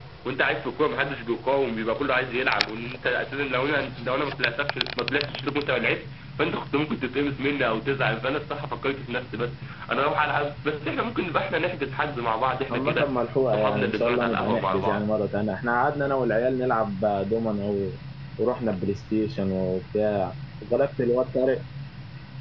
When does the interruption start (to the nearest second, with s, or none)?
13 s